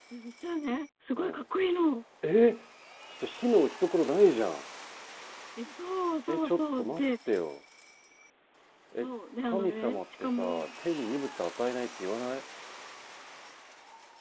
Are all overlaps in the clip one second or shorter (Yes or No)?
No